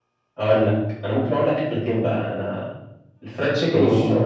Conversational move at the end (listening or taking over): listening